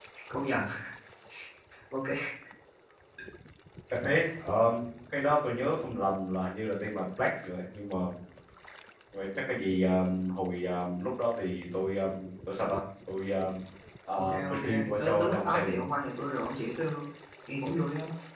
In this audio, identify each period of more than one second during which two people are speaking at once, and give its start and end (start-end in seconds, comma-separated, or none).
14.2-15.8